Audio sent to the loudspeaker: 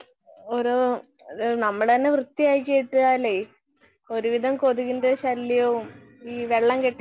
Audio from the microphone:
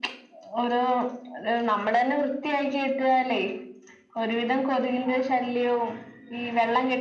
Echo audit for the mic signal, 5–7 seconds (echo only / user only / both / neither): echo only